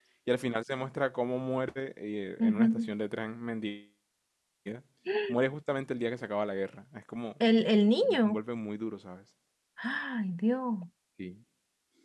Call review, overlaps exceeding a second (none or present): none